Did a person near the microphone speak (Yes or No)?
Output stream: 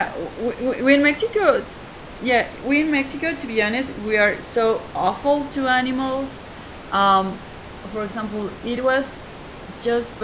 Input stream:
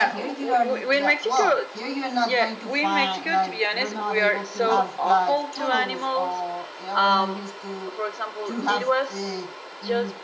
Yes